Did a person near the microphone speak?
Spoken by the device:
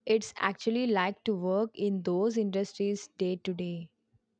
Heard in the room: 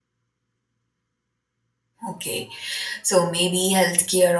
Yes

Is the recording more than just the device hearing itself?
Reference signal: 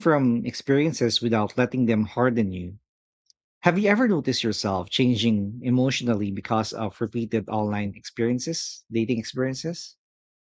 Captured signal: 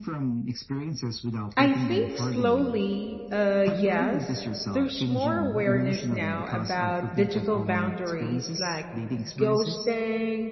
Yes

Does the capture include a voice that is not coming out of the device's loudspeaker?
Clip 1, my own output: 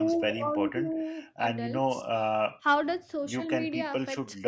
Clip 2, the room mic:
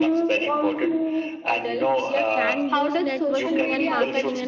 Yes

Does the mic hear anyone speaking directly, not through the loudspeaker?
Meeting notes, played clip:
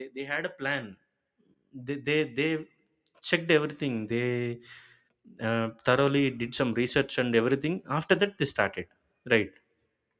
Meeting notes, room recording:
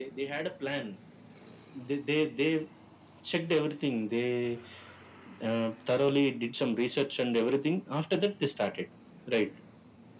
No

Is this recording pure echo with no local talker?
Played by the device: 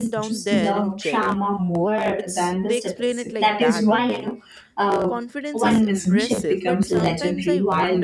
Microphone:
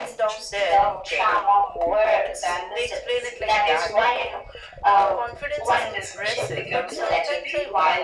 Yes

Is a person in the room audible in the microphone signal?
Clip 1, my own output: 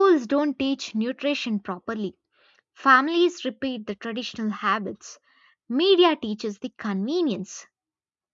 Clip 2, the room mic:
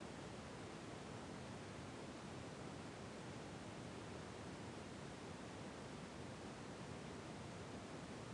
No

